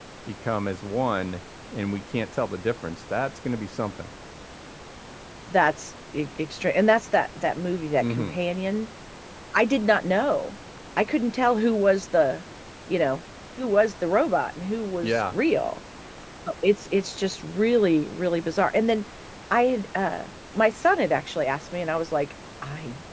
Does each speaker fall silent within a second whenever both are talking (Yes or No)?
Yes